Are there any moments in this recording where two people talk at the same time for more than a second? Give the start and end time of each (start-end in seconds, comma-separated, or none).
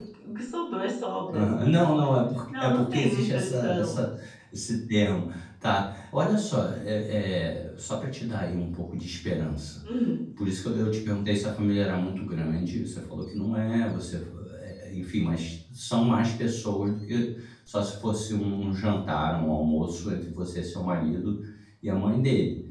2.6-4.0